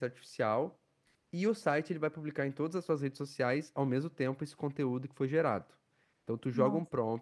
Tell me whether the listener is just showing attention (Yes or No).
Yes